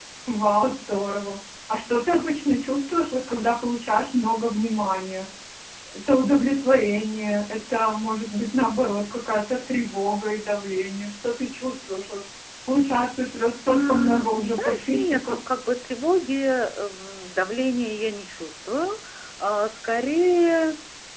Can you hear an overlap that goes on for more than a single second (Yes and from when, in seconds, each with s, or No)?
Yes, from 13.7 s